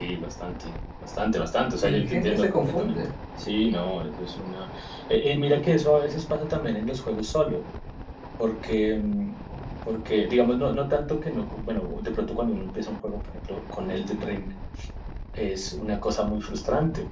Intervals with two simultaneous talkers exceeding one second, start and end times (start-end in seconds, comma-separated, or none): 1.8-3.1